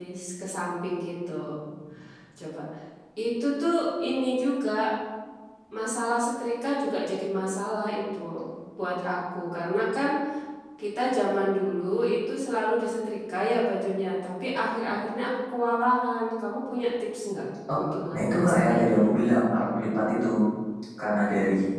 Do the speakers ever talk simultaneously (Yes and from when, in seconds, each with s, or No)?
Yes, from 17.7 s